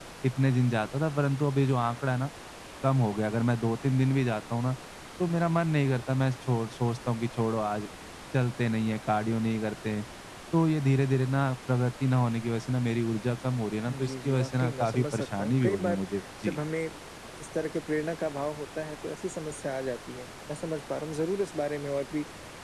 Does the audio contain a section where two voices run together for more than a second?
Yes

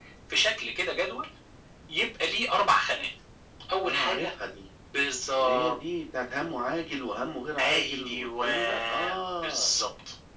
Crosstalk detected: Yes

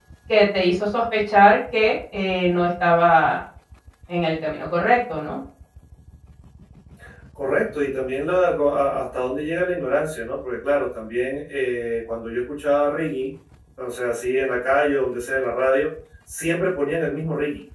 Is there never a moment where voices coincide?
Yes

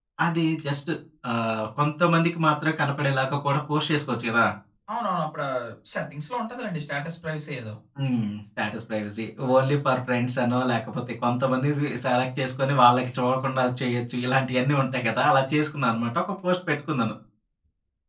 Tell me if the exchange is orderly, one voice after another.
Yes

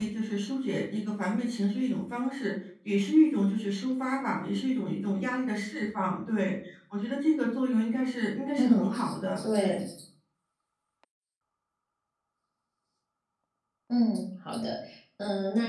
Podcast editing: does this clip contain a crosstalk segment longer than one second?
No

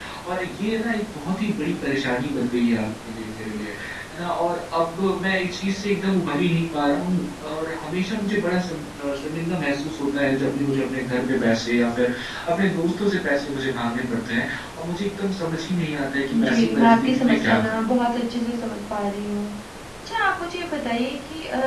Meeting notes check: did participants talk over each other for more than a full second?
Yes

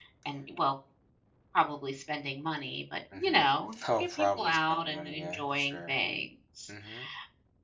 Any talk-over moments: Yes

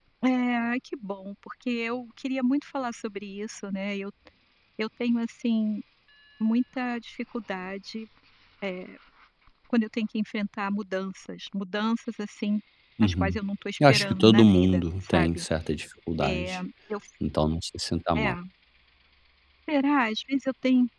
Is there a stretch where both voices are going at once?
Yes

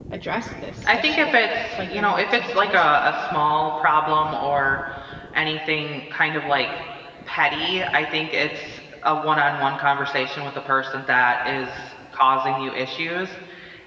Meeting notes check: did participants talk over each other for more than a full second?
Yes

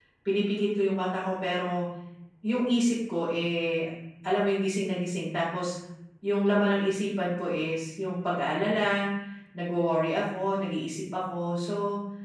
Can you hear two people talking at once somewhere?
No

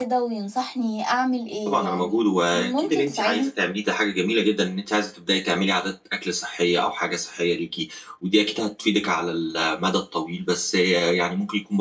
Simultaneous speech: Yes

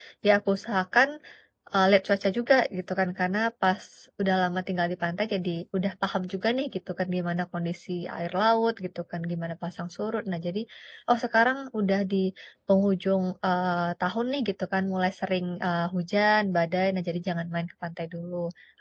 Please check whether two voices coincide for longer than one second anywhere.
No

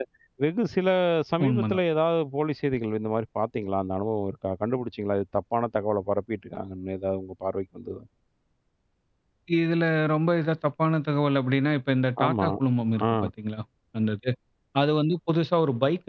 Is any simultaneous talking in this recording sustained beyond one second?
No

